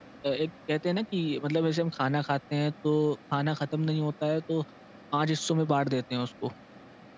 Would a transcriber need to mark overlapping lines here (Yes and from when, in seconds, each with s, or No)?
No